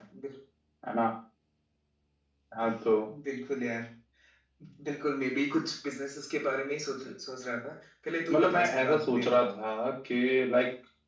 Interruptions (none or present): present